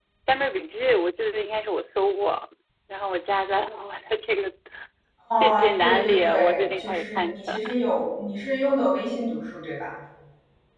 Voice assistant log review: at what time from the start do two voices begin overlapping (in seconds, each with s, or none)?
5.4 s